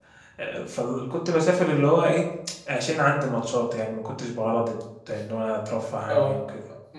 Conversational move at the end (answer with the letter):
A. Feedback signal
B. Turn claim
B